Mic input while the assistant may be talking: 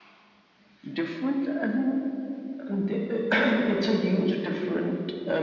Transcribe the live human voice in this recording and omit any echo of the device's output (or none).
none